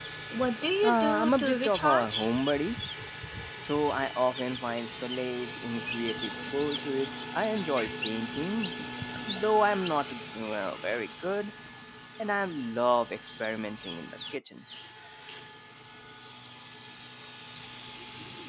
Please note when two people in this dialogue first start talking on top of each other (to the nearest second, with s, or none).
1 s